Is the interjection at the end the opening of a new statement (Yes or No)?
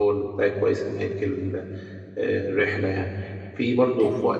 No